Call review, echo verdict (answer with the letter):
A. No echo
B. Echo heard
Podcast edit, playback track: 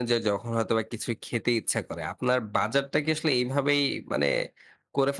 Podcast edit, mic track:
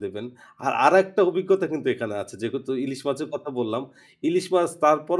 A